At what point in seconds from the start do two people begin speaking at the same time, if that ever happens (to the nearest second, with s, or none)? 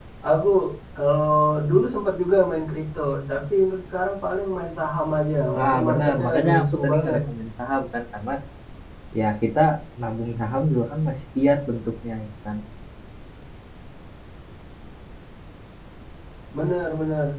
6 s